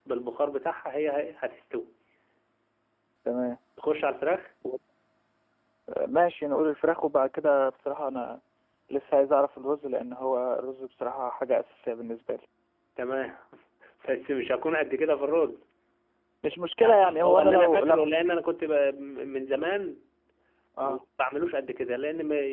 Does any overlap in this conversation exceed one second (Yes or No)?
Yes